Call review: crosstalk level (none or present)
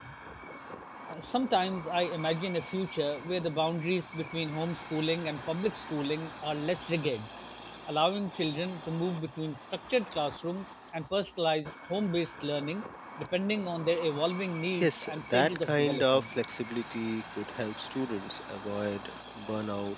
present